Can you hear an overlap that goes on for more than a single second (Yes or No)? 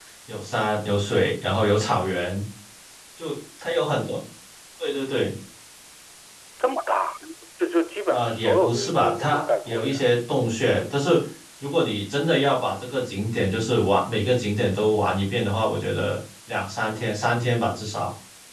Yes